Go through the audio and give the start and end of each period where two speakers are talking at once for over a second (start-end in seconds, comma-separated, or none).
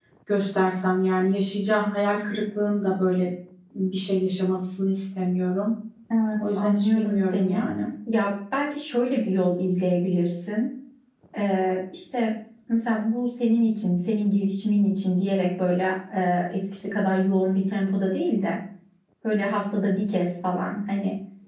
6.4-7.7